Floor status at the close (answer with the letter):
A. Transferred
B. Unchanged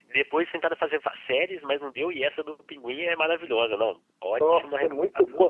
A